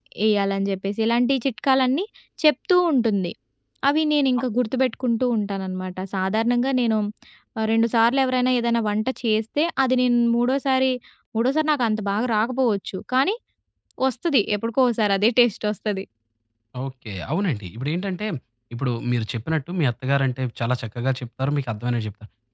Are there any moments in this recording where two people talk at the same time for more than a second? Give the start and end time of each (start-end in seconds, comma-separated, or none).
none